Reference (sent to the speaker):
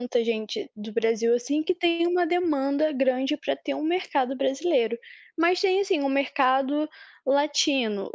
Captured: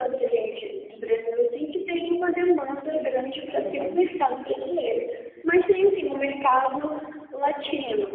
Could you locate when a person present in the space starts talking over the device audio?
3.6 s

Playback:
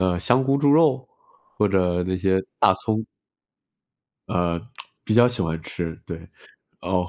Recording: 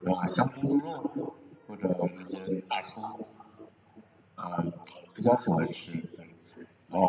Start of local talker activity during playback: none

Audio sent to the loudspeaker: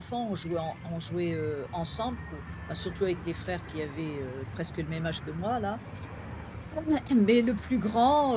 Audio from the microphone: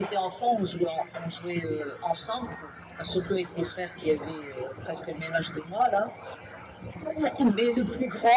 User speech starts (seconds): none

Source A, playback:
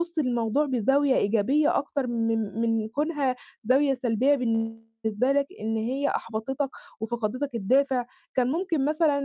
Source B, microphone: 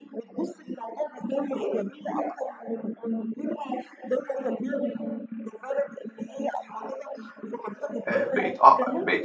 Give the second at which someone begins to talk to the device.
8.1 s

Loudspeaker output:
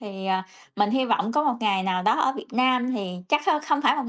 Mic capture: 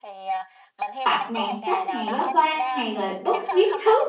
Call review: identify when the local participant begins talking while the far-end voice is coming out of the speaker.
1.0 s

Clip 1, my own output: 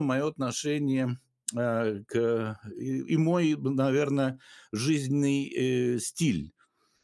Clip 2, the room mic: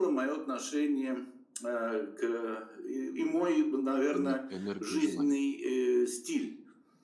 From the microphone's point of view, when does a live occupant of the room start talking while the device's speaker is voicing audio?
4.1 s

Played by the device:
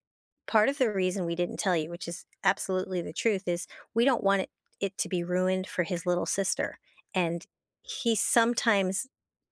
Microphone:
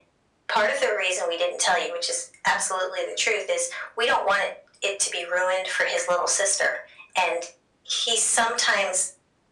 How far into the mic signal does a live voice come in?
none

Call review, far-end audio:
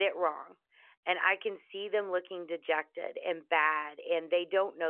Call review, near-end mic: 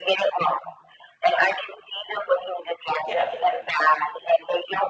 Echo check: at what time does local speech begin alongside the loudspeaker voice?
3.0 s

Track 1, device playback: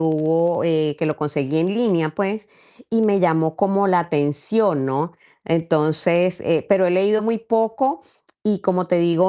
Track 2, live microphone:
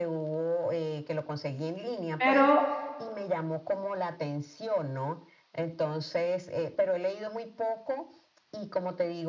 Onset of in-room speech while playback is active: 2.2 s

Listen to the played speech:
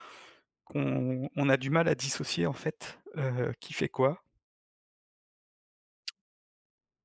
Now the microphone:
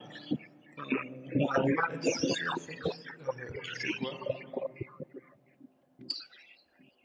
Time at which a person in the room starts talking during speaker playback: none

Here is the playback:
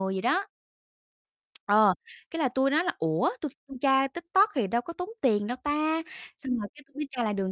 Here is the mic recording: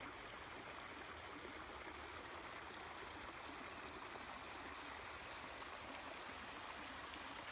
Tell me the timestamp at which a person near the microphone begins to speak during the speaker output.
none

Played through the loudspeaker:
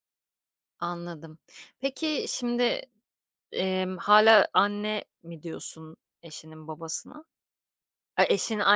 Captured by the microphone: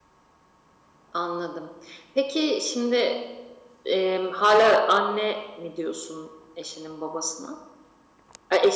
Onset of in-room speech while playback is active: none

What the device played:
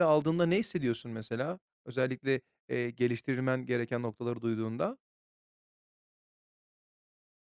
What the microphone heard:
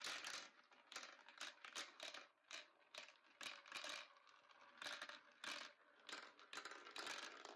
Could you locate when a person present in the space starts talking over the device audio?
none

